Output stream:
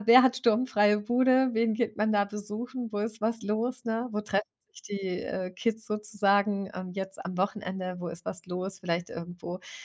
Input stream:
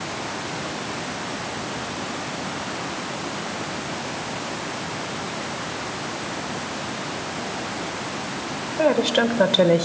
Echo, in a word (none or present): none